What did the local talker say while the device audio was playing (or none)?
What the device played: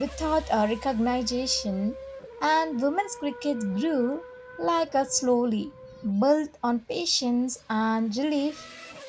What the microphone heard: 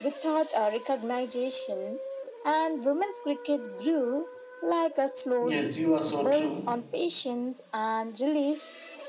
Yes, you are so true.